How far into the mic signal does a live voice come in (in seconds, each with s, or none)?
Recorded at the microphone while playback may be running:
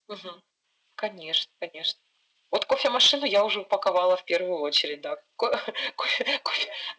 none